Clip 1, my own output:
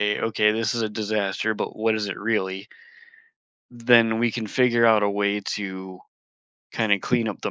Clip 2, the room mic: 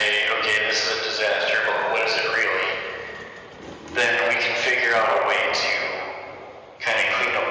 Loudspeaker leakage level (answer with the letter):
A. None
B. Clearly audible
B